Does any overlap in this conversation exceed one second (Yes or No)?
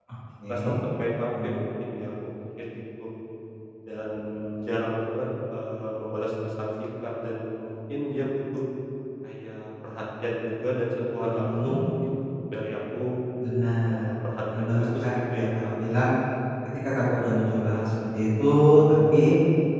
Yes